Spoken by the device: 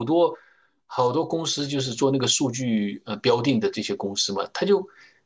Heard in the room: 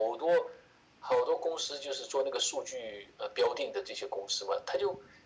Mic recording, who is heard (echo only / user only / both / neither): echo only